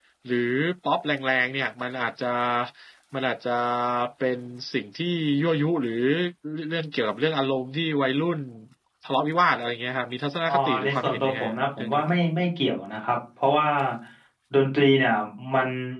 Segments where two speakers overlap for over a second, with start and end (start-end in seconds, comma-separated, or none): 10.4-12.0